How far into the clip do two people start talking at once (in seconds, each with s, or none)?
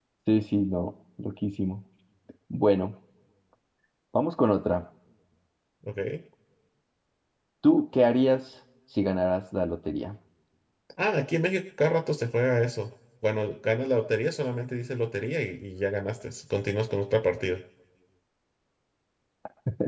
none